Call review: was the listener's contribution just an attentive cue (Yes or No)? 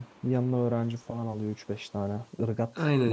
No